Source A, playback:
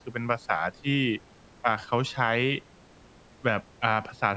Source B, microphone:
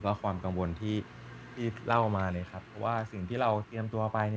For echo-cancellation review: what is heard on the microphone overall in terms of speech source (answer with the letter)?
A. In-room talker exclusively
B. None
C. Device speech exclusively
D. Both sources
A